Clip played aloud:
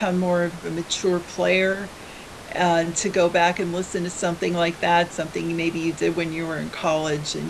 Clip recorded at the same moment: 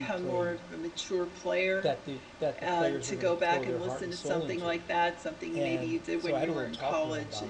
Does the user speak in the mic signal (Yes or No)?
Yes